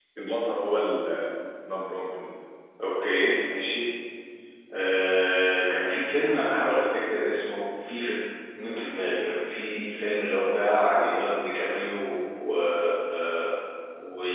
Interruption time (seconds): none

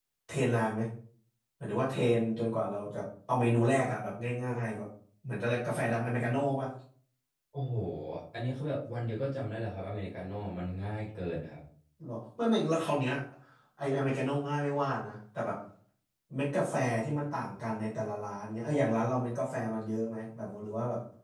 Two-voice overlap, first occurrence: none

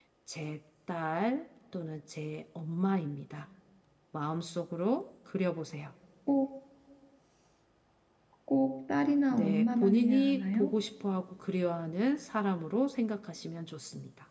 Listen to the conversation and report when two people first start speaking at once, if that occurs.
9.3 s

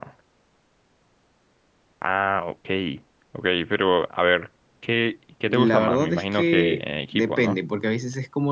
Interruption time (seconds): 5.5 s

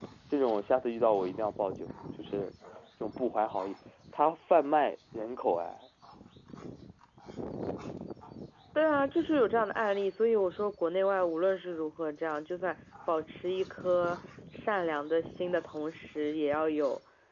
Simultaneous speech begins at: none

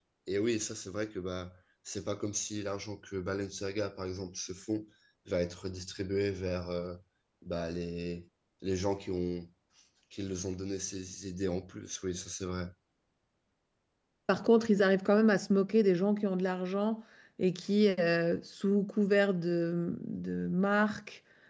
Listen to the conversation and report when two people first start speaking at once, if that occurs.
none

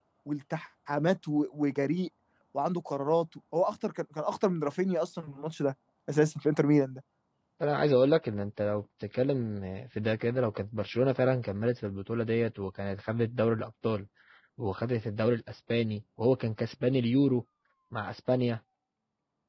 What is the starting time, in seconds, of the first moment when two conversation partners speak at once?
none

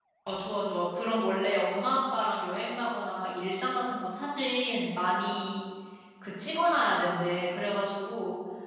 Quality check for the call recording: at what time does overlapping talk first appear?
none

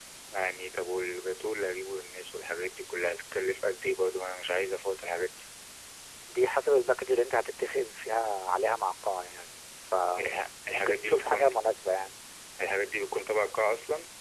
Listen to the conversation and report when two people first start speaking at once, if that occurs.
10.2 s

